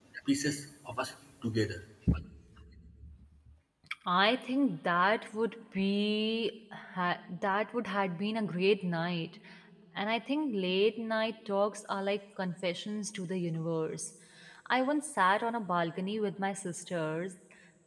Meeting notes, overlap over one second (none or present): none